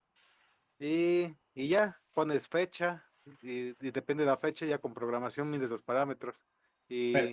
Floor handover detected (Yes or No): No